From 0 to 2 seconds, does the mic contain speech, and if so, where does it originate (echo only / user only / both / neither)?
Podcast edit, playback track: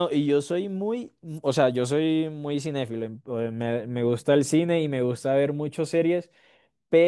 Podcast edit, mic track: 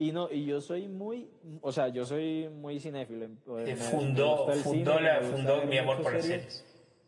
echo only